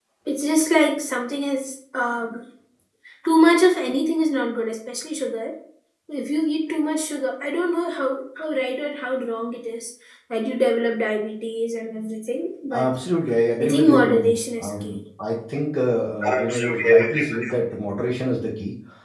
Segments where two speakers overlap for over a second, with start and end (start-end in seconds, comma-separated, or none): 13.6-14.9, 16.3-17.6